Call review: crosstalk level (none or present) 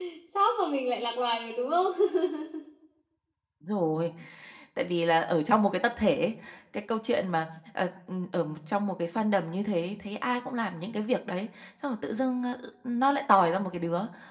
none